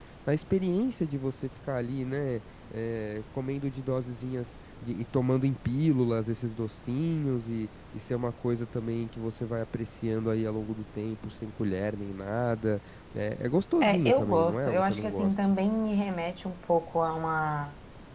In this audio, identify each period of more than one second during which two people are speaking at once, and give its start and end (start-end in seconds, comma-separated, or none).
13.8-15.3